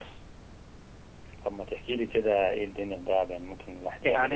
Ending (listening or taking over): taking over